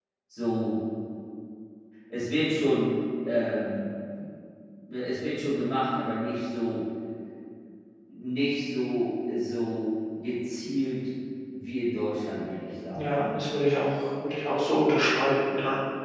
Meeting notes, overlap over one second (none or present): none